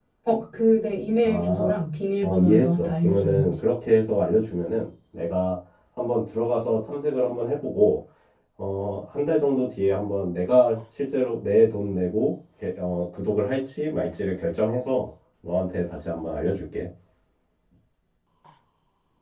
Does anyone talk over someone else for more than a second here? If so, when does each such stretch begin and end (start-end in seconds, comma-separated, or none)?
2.2-3.6